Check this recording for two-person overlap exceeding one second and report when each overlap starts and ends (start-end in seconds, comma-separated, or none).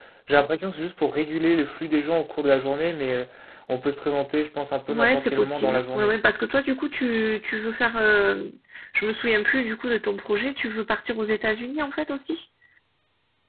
4.9-6.1